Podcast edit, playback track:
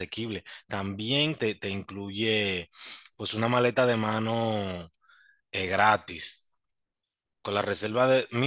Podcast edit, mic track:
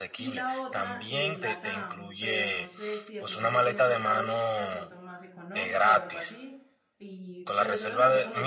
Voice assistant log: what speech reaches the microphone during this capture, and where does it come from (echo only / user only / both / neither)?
both